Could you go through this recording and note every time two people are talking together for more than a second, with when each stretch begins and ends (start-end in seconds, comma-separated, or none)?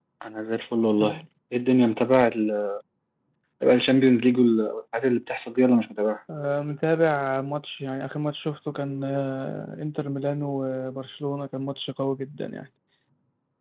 none